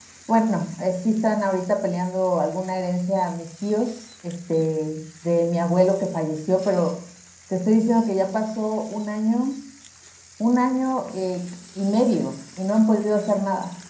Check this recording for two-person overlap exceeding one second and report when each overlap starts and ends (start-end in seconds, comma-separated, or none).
none